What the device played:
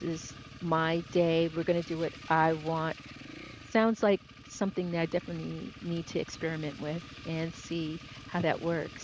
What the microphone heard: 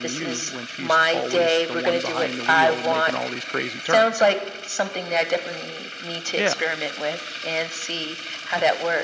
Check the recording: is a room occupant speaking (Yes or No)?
Yes